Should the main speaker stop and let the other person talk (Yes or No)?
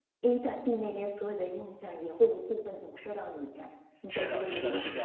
Yes